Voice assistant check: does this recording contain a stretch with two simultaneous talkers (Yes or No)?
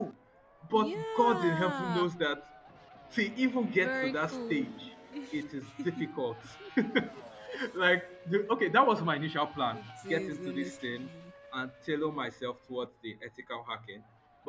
Yes